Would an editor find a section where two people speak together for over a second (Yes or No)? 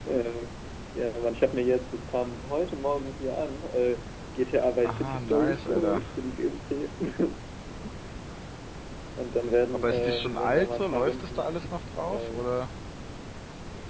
Yes